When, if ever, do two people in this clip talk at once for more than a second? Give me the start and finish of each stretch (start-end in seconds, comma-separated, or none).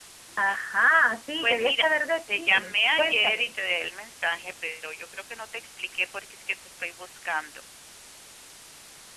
2.3-3.5